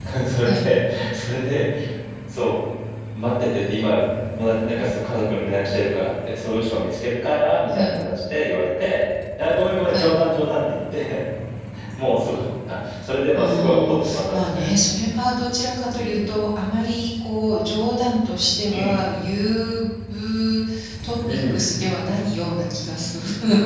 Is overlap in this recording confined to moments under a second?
No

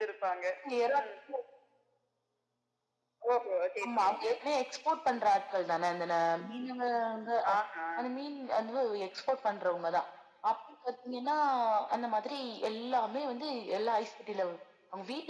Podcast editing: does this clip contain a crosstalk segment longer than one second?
No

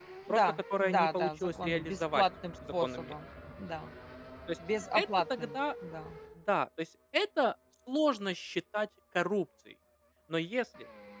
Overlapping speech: Yes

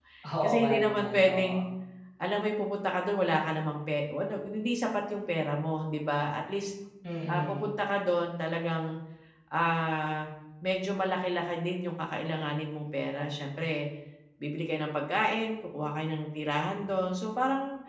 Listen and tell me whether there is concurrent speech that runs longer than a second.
Yes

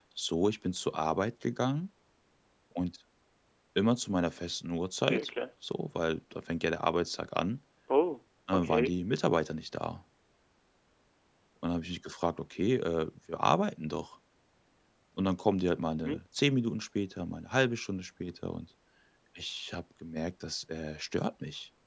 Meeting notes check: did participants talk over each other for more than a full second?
No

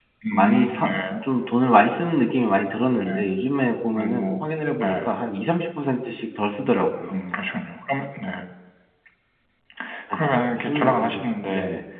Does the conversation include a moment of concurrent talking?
Yes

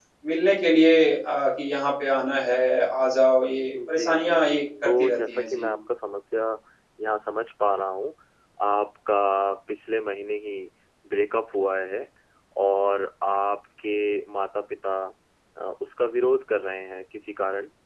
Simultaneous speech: Yes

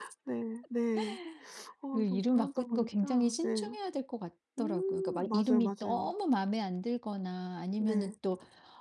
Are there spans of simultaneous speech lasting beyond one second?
Yes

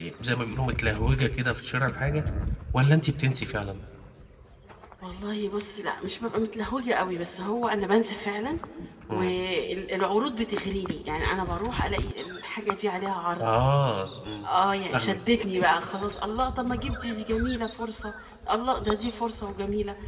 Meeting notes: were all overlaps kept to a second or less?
Yes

